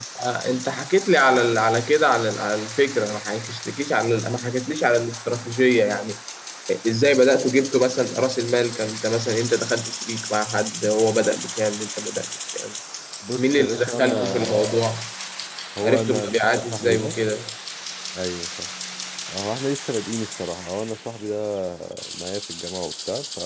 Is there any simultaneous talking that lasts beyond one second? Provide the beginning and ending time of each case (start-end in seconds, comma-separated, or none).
13.3-14.7, 15.8-17.2